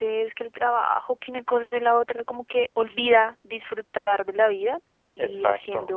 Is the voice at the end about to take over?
No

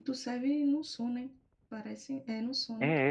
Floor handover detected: Yes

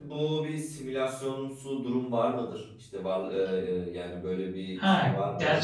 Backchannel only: No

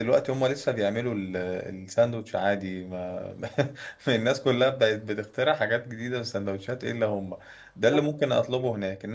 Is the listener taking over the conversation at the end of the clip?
No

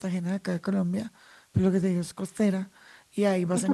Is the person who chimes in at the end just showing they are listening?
Yes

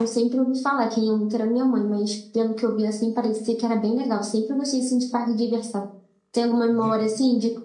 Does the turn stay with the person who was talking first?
Yes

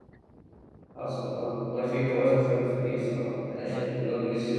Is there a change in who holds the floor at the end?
No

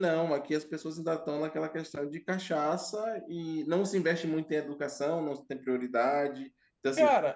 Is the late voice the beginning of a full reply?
No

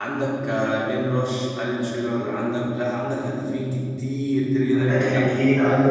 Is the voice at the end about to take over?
Yes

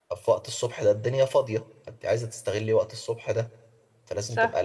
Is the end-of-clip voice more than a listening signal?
No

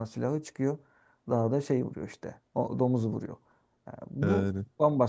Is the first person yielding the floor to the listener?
No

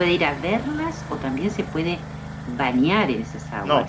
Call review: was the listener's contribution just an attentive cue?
No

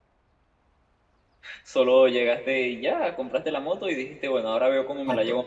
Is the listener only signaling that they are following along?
No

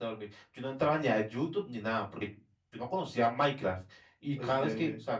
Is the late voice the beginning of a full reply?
No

